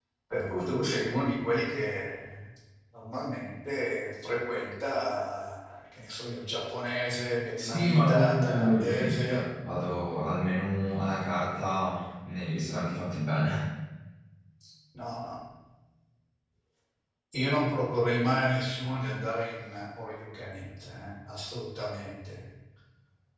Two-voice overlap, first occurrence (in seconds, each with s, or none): 7.6 s